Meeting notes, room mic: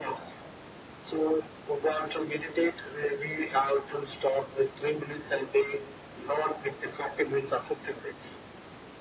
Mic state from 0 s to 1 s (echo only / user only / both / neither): echo only